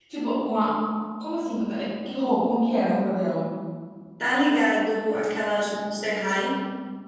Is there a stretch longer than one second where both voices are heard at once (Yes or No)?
No